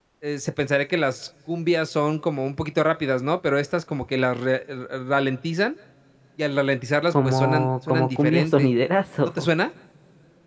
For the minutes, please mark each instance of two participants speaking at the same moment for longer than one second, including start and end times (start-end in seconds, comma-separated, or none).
7.1-8.7